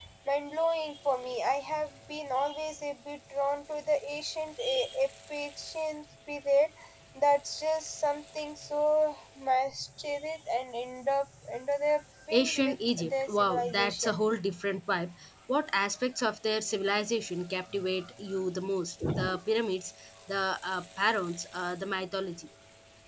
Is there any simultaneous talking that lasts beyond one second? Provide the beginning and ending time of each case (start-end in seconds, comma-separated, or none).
12.3-14.2